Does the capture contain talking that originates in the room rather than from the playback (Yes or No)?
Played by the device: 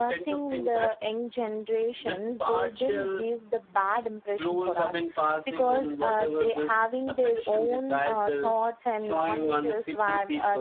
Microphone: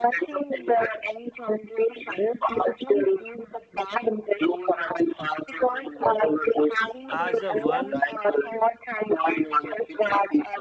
Yes